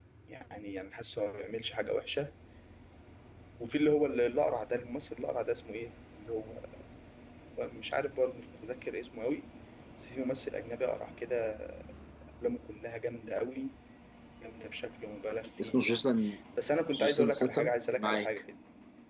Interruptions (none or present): present